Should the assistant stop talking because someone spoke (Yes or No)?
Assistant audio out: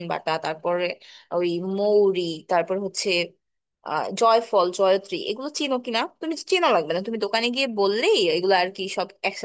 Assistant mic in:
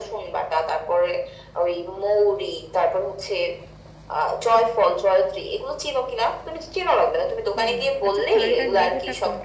Yes